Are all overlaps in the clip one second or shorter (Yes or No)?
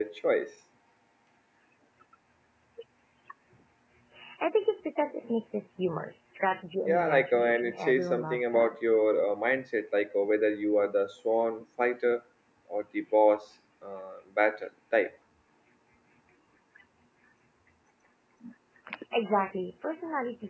No